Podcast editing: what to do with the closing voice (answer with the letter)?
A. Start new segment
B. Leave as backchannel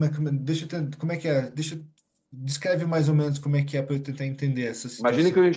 A